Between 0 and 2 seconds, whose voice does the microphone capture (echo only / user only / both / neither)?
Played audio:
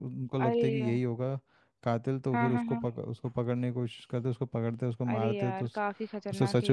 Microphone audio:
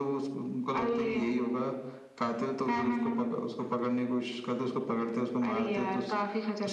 echo only